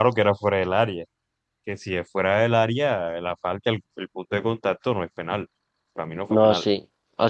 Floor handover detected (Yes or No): Yes